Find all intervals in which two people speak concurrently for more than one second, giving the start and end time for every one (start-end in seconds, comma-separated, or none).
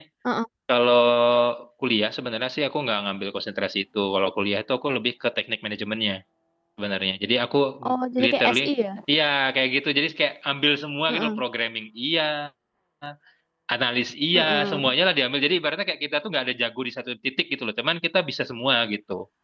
none